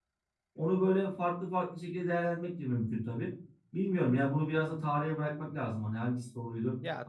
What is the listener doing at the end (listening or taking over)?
taking over